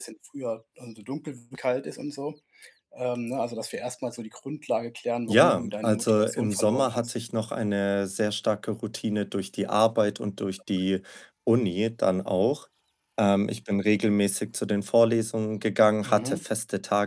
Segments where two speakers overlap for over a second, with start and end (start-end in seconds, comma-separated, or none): 5.3-7.1